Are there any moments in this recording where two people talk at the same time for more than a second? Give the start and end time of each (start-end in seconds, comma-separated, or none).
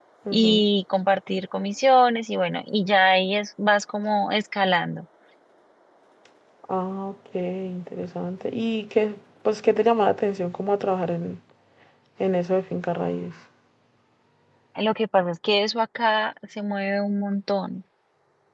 none